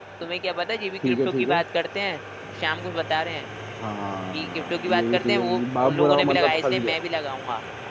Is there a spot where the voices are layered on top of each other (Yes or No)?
Yes